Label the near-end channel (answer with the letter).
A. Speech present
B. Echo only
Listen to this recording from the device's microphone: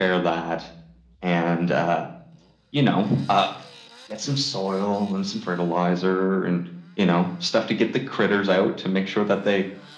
B